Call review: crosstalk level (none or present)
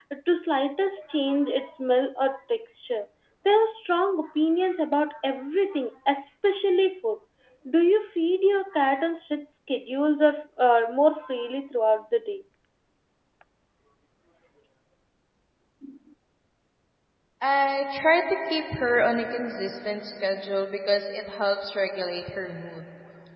none